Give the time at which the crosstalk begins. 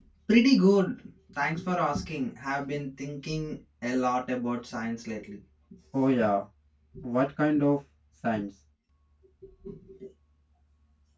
none

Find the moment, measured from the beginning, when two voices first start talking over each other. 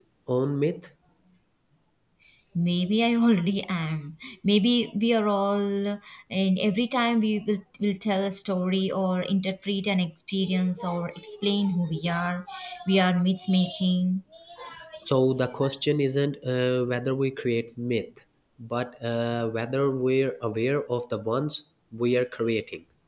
none

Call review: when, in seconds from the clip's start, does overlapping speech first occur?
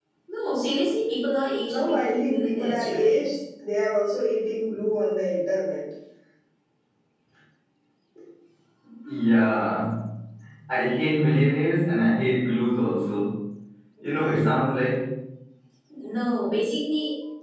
1.6 s

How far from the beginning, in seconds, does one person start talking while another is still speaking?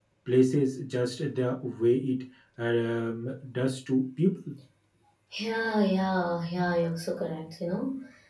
none

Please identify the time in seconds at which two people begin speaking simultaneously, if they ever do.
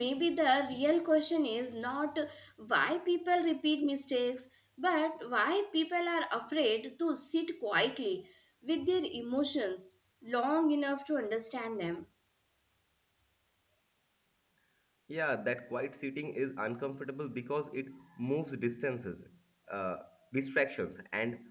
none

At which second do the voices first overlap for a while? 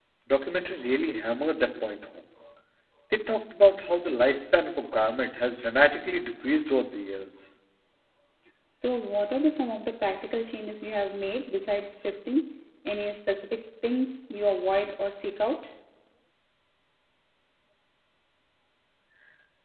none

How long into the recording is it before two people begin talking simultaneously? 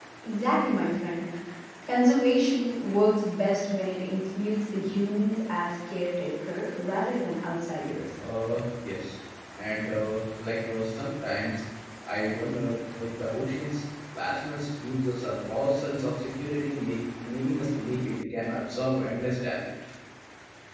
none

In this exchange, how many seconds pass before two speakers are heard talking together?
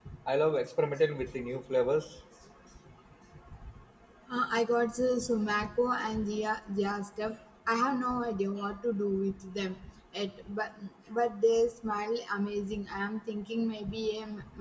none

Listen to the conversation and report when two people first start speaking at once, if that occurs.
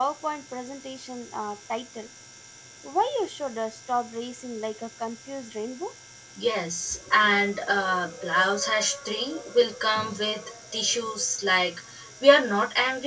none

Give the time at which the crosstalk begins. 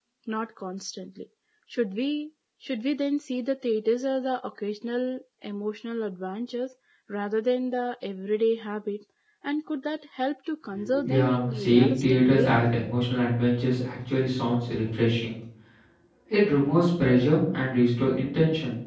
11.0 s

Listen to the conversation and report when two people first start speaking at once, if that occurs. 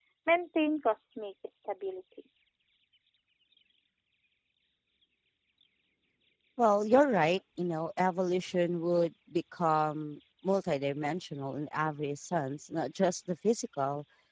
none

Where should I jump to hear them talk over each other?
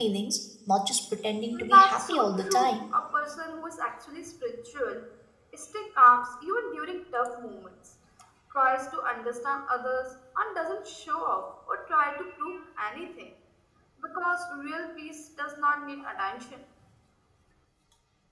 1.5 s

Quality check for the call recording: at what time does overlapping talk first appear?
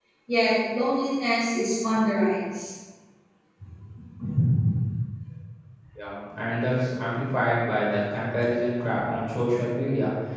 none

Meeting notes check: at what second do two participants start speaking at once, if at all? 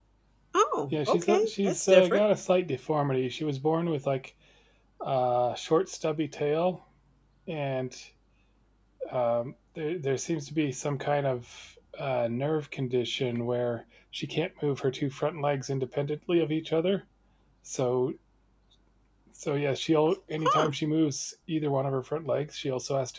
0.9 s

